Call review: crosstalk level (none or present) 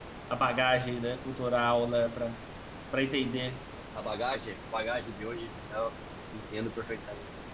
none